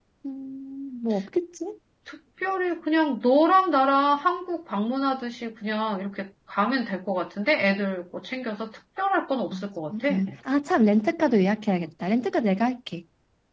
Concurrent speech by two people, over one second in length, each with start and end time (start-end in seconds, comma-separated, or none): none